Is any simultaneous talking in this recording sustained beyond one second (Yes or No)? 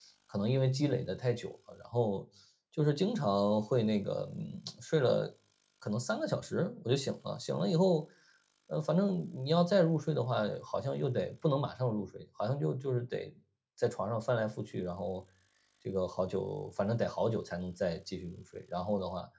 No